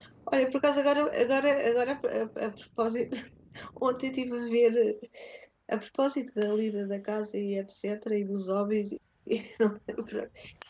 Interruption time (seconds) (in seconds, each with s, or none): none